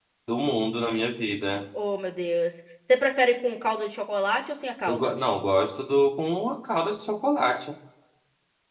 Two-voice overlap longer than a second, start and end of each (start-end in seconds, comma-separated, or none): none